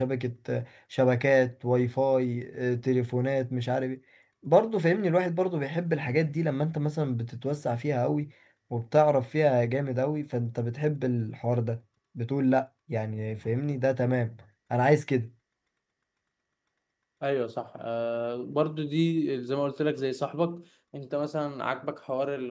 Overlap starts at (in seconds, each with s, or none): none